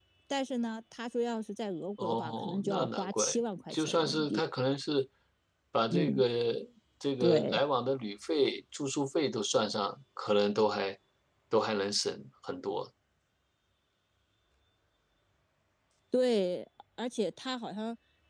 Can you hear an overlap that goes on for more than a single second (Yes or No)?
Yes